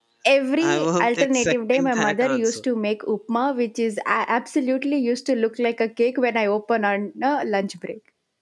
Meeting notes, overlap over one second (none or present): present